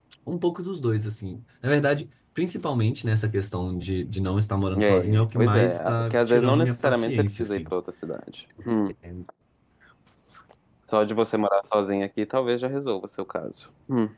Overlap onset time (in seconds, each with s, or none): 4.7 s